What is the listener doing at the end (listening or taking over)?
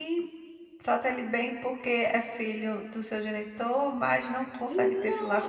taking over